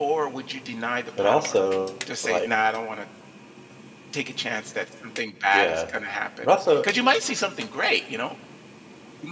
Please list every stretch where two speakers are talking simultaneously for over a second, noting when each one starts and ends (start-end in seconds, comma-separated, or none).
none